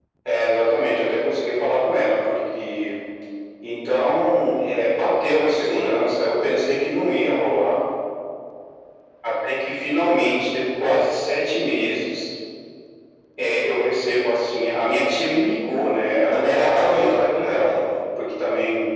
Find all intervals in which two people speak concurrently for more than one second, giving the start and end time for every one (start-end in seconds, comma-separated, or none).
16.3-17.8